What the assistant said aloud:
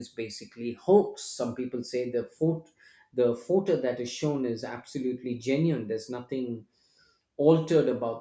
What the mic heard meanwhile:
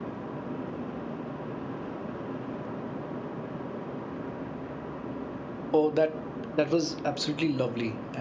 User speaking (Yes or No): Yes